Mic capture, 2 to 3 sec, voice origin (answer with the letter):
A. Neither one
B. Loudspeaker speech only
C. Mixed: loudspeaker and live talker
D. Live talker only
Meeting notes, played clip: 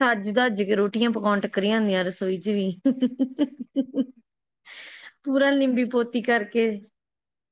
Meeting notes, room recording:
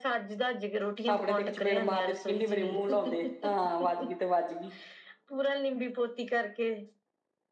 C